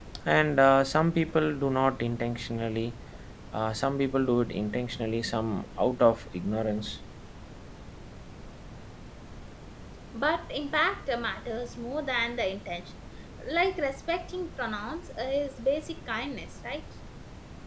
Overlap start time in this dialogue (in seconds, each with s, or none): none